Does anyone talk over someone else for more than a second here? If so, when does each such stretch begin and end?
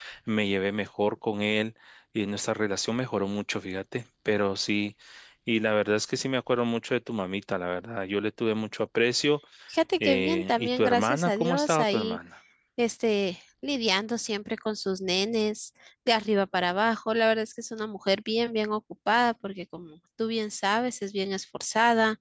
10.0-12.2

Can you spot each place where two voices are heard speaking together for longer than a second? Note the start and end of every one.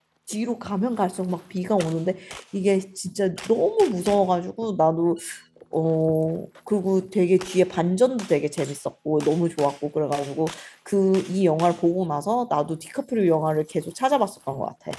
none

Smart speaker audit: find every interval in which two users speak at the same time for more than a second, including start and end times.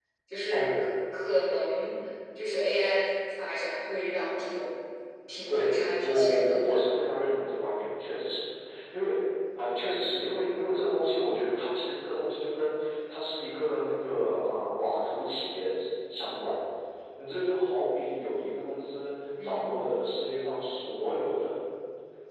5.5-6.8

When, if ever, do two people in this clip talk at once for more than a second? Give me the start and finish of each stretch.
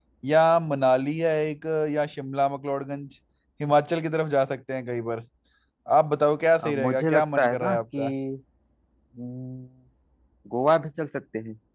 6.6-8.1

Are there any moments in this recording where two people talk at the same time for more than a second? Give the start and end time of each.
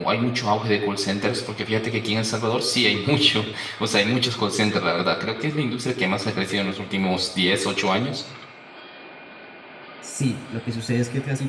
none

